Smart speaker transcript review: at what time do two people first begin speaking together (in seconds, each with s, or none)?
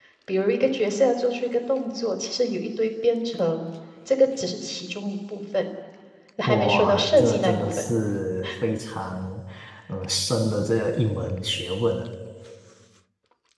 6.5 s